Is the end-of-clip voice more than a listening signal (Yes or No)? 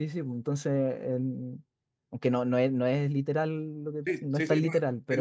Yes